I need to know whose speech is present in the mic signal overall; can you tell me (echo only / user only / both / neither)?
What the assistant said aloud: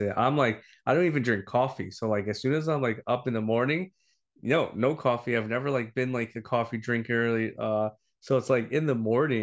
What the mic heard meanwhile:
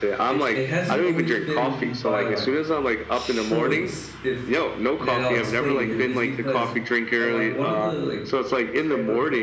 both